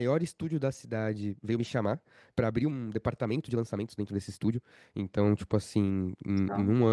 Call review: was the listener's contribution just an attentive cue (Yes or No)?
Yes